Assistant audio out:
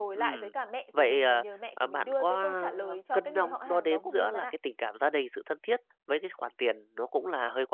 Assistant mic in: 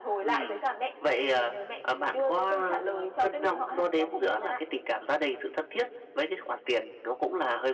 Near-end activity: none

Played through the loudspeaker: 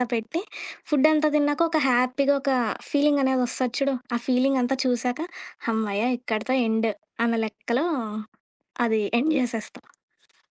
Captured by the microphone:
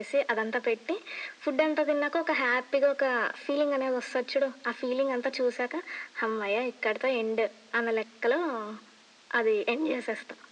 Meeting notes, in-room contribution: none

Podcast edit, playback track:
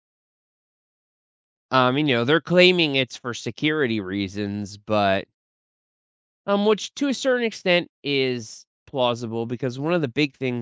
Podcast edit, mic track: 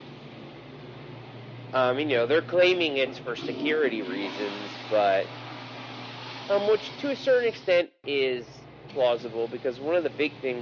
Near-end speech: none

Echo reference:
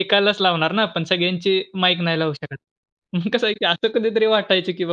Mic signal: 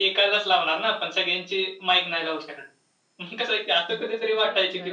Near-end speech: present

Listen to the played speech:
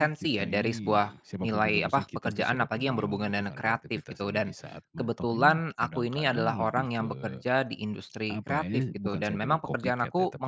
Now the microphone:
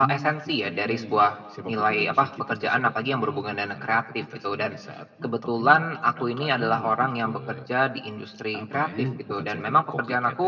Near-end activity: none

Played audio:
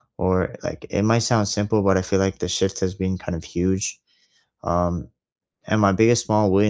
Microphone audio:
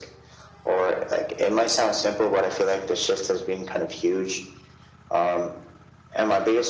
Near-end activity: none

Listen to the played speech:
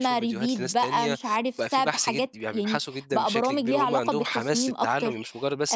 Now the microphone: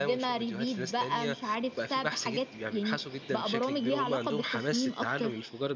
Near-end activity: none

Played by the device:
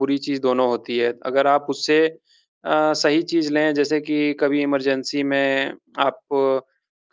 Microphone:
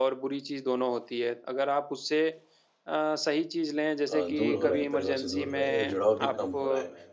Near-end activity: present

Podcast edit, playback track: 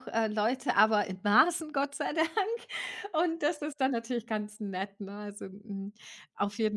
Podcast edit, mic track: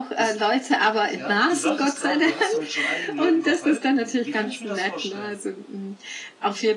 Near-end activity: present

